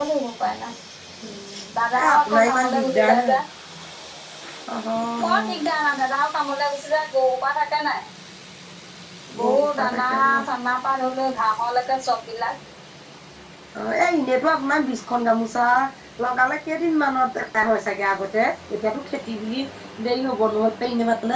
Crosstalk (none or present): present